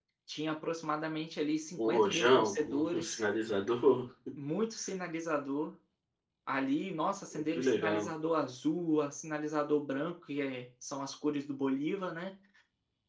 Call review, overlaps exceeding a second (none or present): present